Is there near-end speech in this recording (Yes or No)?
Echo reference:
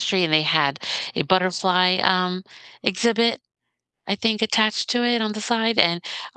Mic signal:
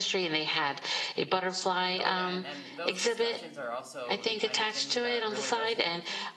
Yes